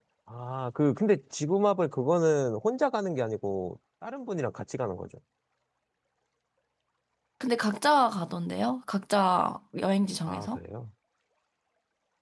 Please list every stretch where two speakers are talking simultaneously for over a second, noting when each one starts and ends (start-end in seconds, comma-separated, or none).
none